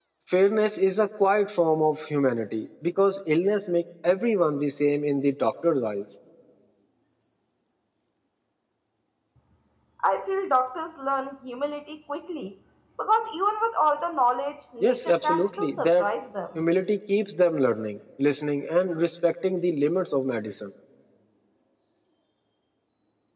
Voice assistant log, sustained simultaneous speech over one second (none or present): present